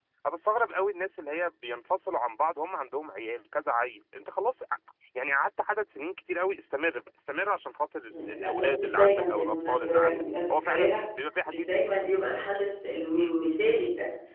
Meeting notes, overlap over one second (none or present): present